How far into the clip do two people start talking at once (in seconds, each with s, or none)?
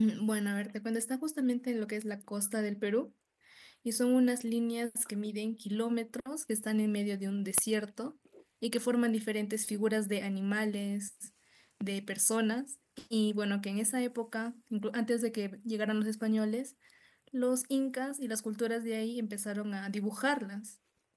none